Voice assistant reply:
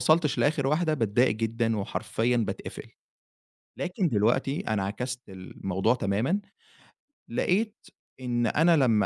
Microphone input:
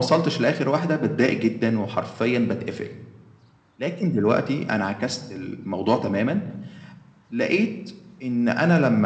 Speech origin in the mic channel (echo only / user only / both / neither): echo only